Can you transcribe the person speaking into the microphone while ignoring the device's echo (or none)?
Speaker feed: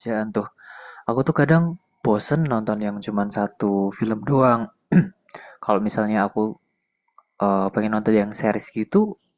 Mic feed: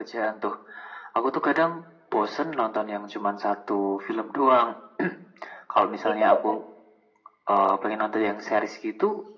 Itu per...